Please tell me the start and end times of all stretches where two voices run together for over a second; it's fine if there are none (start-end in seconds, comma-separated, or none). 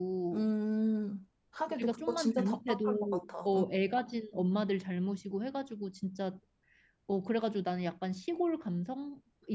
1.7-3.6